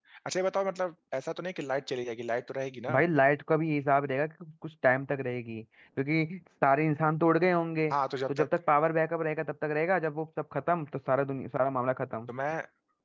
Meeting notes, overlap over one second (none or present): none